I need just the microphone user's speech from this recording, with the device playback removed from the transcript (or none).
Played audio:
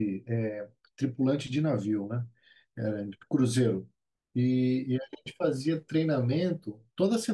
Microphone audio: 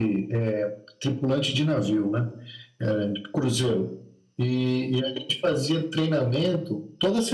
none